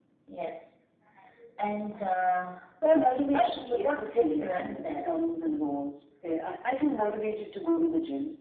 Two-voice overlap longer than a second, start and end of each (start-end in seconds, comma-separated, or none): 3.3-5.2